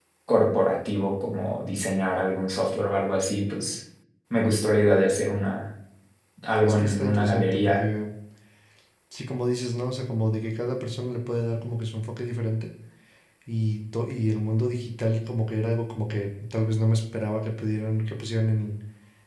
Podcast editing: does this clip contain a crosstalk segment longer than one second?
Yes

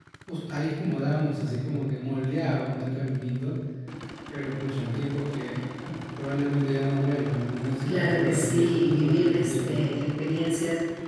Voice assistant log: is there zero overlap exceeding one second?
No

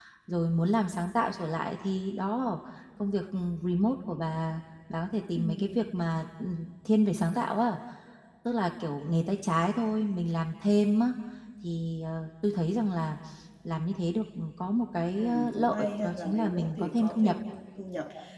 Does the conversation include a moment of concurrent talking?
Yes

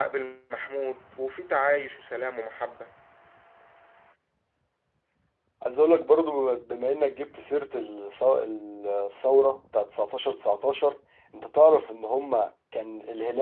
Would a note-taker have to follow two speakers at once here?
No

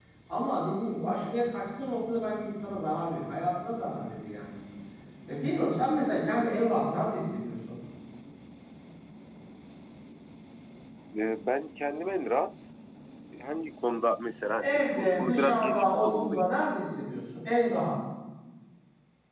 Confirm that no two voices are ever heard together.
No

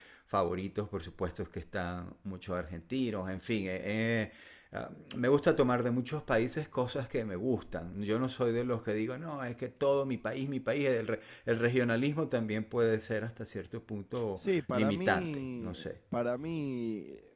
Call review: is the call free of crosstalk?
No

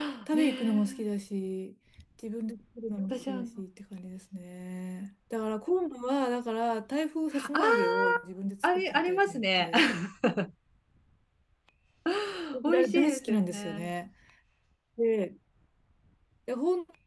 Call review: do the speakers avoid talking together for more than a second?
No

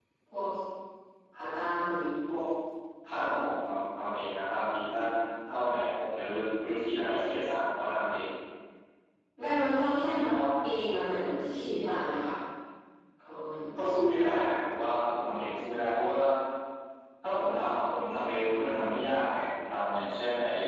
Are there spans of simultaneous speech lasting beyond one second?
No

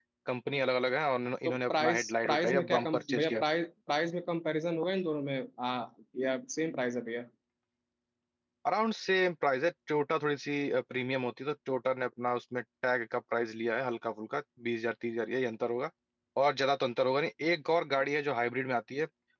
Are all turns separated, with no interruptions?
No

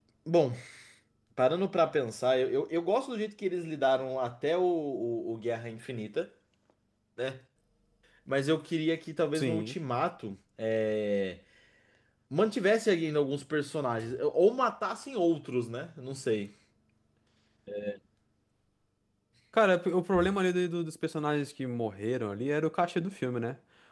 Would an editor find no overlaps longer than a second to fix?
Yes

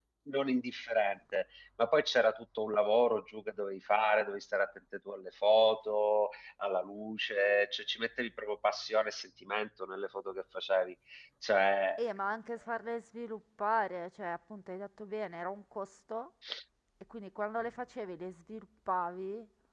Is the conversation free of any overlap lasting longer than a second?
Yes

